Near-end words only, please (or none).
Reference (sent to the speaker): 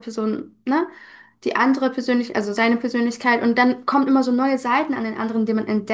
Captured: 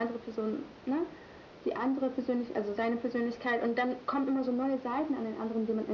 none